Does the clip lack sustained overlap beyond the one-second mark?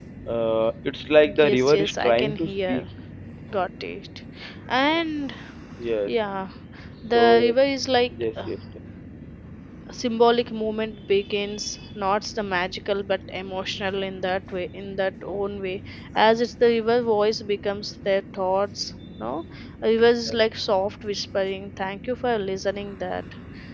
No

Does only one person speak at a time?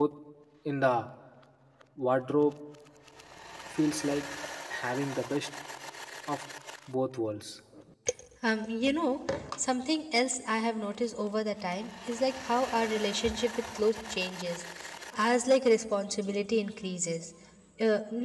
Yes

